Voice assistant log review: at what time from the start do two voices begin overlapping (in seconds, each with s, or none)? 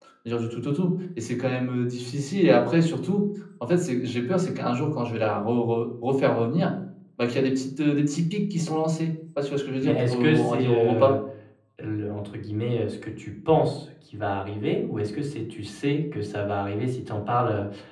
9.8 s